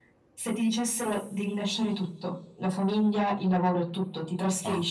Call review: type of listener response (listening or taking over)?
listening